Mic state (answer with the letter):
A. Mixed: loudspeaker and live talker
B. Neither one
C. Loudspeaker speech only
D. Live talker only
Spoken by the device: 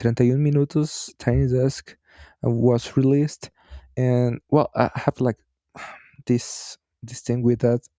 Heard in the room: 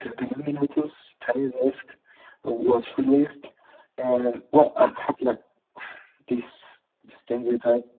C